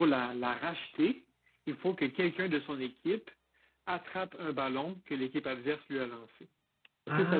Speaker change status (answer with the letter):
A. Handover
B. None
A